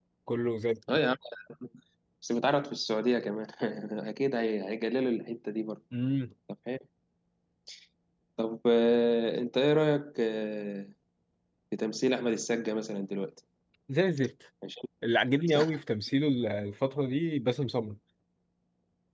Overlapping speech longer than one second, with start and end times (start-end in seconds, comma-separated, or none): none